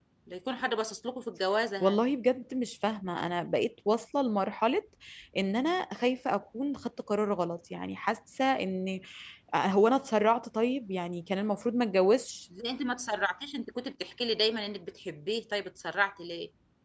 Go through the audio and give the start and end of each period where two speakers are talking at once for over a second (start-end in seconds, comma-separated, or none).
none